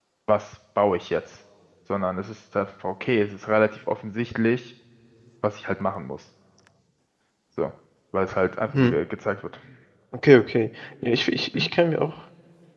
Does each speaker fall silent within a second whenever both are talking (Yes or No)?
Yes